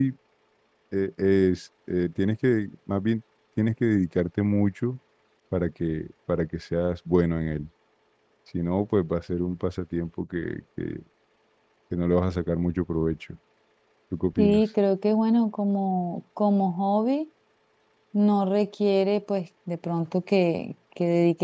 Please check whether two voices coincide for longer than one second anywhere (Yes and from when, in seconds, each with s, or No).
No